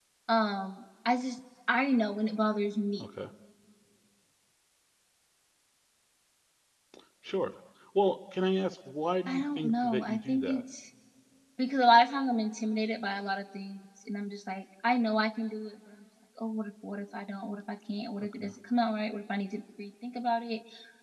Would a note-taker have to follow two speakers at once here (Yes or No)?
Yes